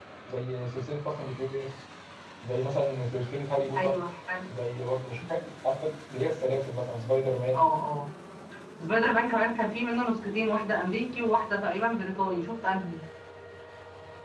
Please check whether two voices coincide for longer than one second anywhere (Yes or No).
No